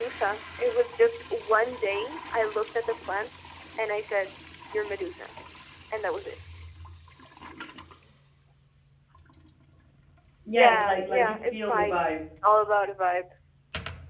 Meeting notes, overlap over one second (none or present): present